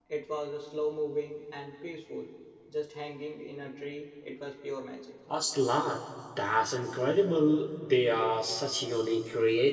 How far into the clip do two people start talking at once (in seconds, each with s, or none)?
none